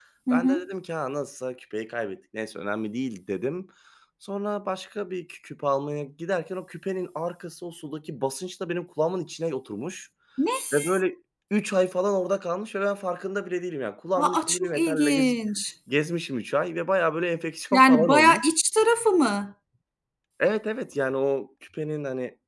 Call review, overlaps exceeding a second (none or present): present